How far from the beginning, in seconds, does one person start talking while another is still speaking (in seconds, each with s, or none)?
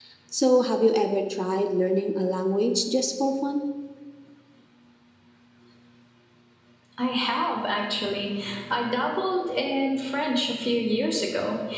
none